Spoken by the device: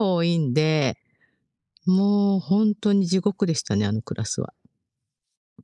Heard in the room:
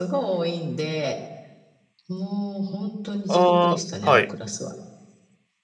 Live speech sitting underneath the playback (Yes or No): No